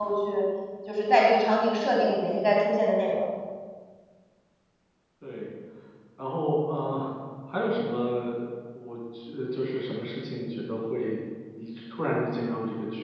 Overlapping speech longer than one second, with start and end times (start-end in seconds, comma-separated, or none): none